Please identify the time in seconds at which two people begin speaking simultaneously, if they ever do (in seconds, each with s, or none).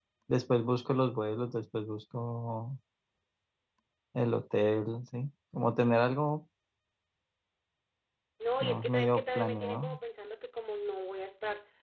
8.6 s